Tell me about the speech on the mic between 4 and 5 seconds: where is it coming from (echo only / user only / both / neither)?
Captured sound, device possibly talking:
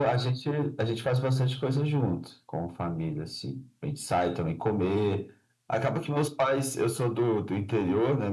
echo only